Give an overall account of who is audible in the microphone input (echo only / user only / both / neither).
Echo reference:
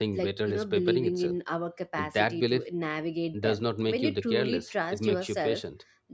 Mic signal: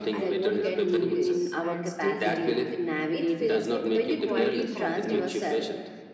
both